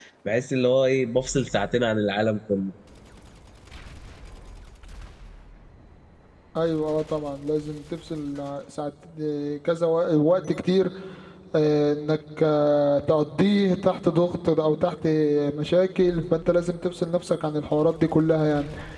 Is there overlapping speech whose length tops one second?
No

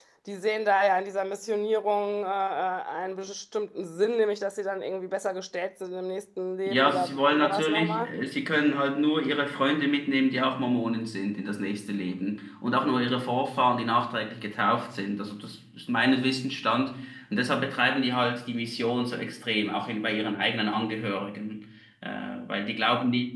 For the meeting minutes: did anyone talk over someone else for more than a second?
Yes, from 6.7 s

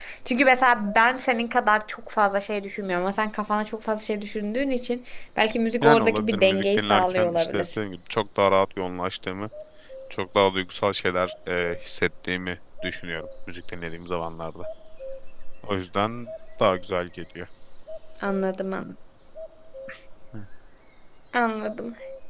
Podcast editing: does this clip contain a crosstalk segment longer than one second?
Yes, from 5.8 s

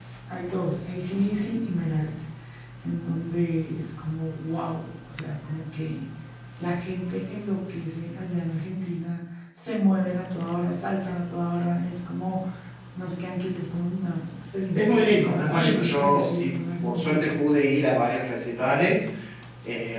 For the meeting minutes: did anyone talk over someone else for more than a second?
Yes, from 14.8 s

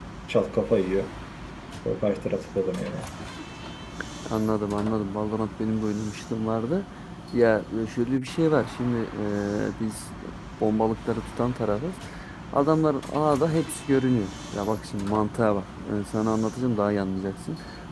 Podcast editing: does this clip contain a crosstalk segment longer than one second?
No

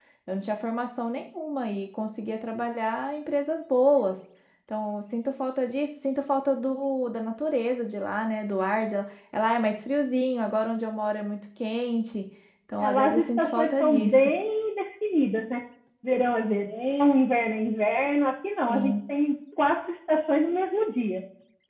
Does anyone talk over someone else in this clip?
Yes, from 12.8 s

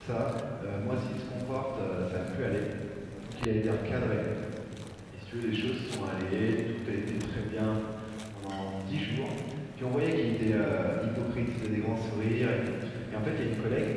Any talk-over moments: No

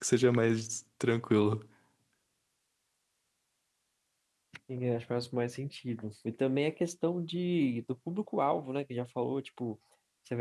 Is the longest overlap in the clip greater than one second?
No

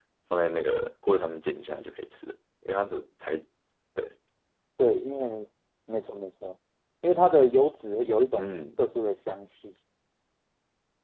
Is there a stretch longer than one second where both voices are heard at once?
No

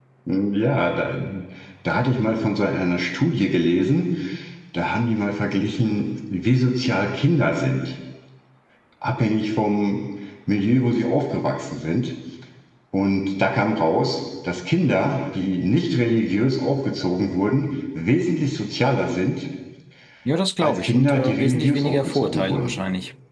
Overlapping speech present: Yes, from 20.6 s

